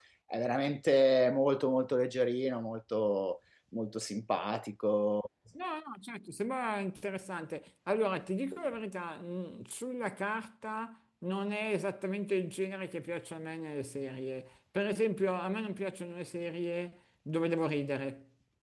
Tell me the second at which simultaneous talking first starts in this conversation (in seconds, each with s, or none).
none